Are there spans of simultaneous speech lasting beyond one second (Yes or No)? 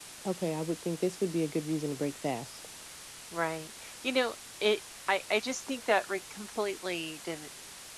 No